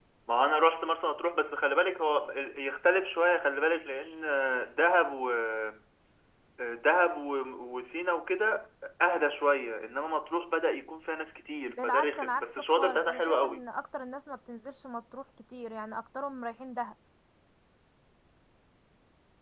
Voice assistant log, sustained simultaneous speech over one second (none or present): present